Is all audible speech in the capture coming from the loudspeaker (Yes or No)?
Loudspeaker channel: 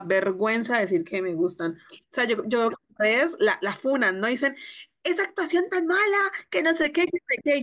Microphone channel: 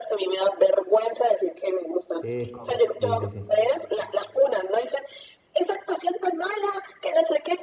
No